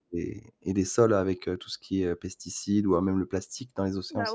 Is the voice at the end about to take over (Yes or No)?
Yes